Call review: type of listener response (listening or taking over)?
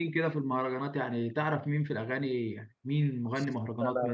taking over